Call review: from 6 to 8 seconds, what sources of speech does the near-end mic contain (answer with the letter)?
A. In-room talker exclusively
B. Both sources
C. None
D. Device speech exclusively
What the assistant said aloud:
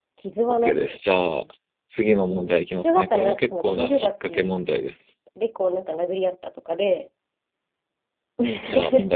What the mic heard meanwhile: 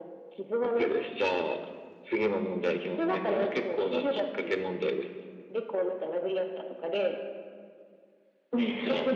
D